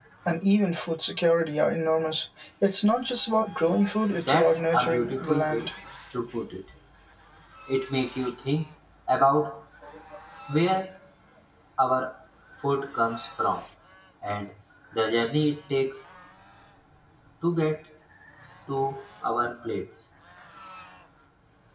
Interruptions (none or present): present